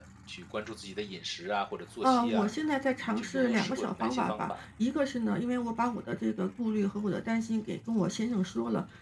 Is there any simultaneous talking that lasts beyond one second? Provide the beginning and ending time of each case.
3.0-4.5

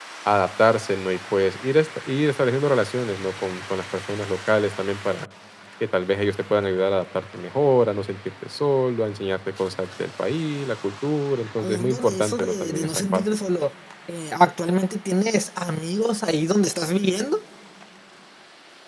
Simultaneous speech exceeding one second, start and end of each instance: 11.6-13.2

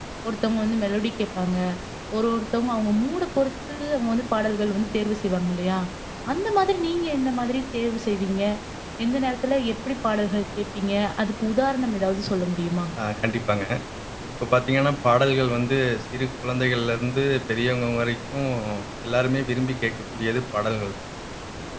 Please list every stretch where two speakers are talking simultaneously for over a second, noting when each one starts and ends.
none

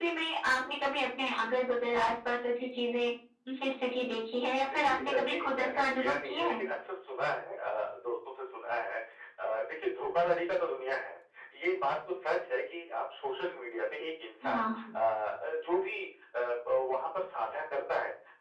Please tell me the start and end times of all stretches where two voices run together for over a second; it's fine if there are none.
4.6-6.6

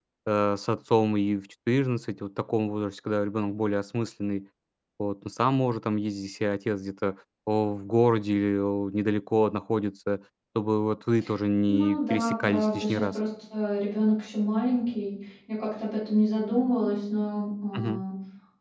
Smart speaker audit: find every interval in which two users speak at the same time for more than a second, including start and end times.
11.7-13.2

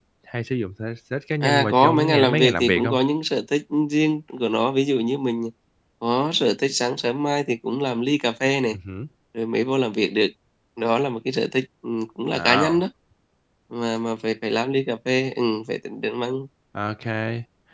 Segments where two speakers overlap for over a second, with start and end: 1.4-2.9

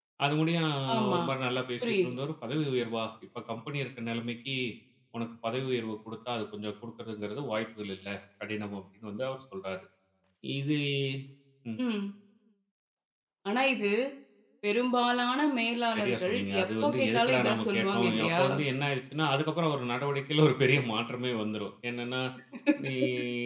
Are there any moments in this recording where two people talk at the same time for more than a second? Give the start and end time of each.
15.9-18.4

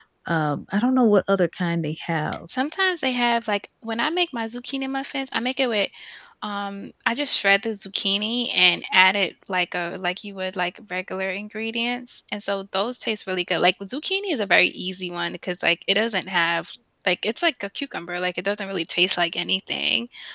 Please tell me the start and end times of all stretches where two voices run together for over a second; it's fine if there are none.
none

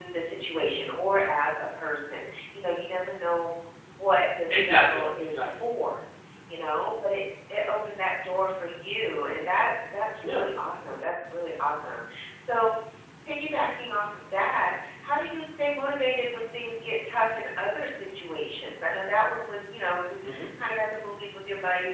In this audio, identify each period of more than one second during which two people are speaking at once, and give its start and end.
4.5-5.7

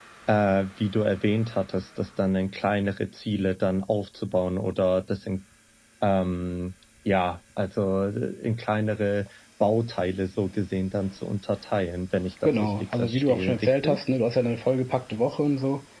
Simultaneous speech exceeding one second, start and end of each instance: 12.4-14.0

